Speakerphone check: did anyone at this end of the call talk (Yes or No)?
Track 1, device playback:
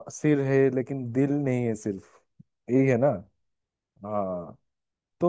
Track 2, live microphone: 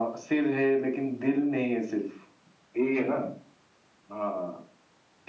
No